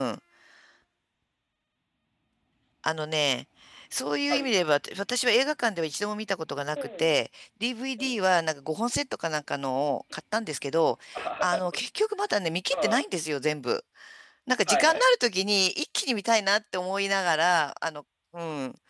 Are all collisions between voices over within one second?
Yes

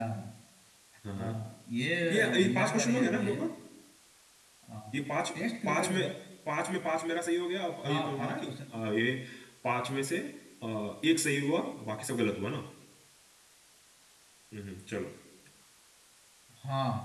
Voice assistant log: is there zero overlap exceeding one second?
No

